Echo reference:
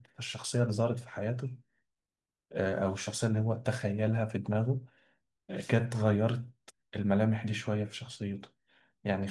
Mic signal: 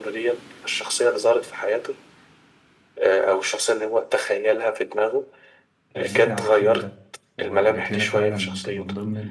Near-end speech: present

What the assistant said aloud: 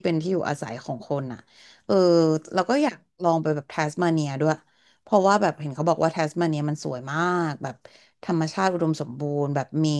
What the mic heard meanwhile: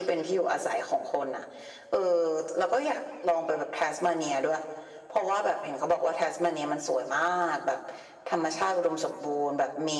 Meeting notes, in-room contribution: none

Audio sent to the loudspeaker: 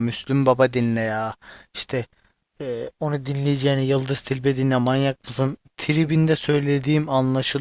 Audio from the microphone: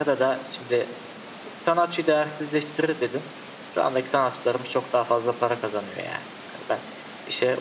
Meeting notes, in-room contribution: present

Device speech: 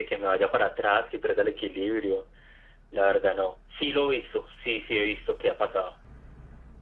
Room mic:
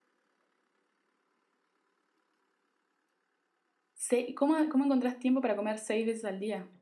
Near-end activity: present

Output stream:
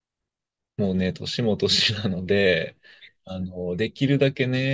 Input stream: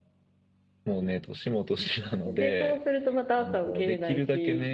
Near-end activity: present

